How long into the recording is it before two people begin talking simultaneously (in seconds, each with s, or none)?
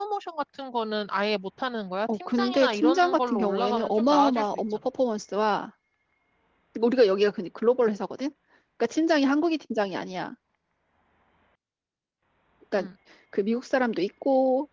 2.0 s